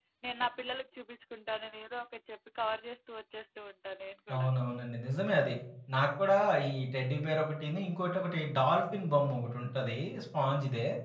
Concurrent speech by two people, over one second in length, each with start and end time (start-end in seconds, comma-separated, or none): none